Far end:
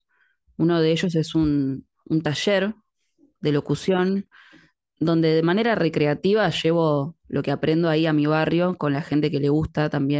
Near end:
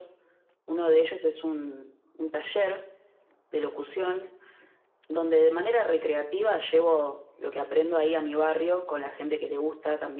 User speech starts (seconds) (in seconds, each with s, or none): none